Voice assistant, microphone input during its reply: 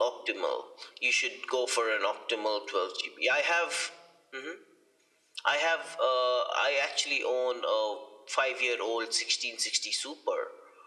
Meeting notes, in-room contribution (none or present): none